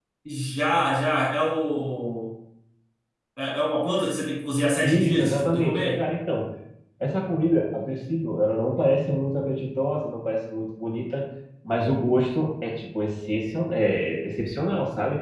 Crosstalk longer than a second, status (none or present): present